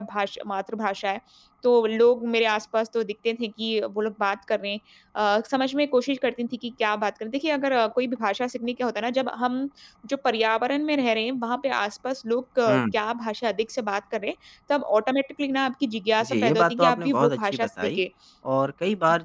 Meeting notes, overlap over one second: present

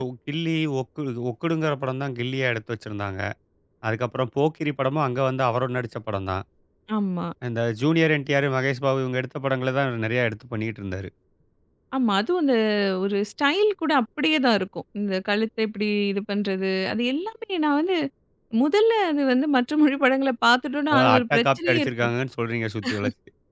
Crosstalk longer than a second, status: present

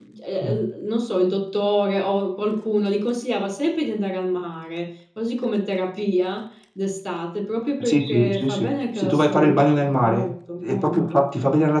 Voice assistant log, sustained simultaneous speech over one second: present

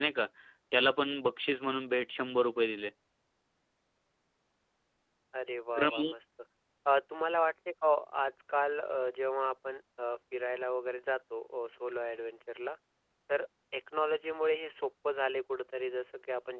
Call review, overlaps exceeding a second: none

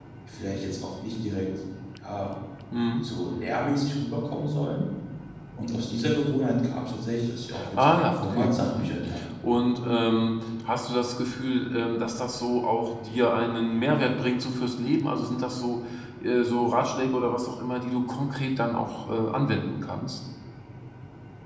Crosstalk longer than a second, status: present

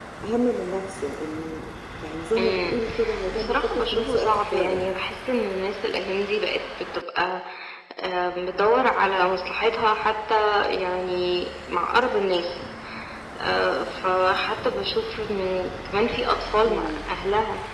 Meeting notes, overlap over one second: present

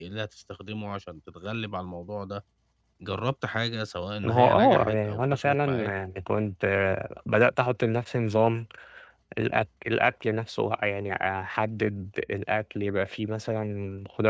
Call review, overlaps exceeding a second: present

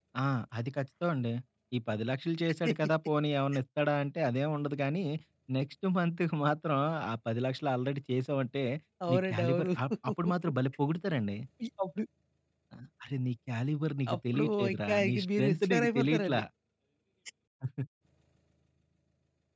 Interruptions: present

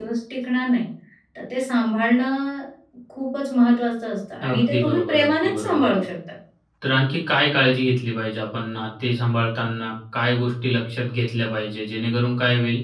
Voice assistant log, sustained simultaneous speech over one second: present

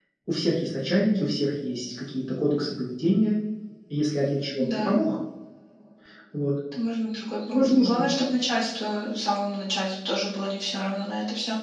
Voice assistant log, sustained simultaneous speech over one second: none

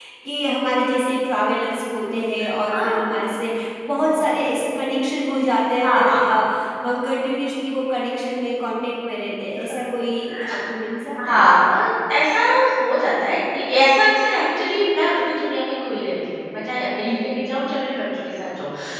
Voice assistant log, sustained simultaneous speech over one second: none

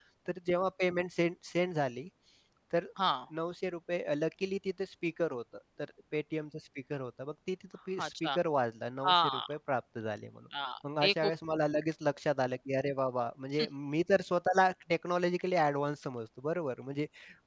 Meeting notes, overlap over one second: none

